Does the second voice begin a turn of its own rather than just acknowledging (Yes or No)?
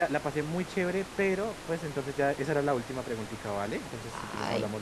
Yes